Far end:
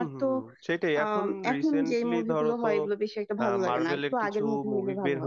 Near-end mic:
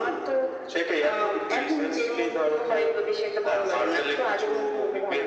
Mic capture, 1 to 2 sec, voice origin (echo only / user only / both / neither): echo only